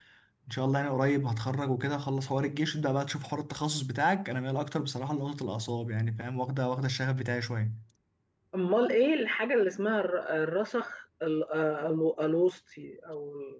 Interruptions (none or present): none